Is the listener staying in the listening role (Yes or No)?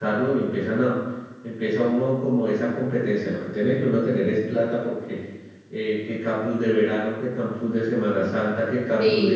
Yes